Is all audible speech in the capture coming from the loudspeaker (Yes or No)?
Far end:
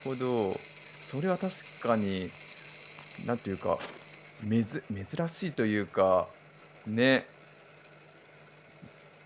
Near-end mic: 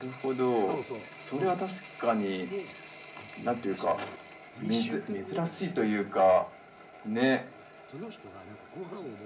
No